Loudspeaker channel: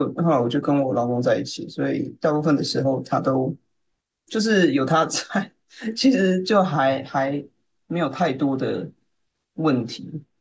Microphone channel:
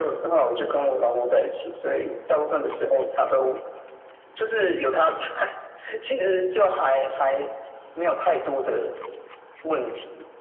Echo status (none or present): present